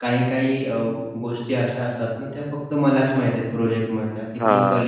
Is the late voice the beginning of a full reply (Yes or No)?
No